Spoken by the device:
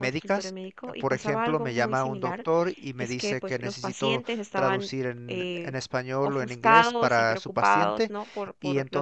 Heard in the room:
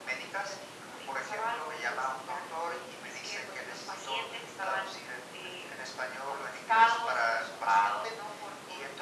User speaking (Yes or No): No